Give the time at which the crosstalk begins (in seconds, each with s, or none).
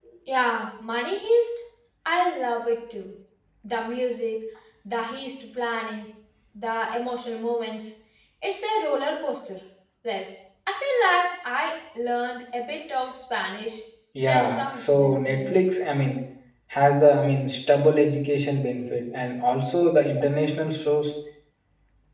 14.2 s